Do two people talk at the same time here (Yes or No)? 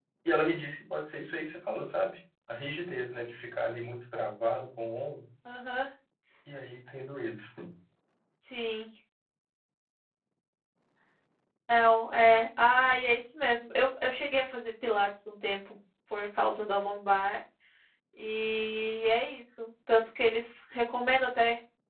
No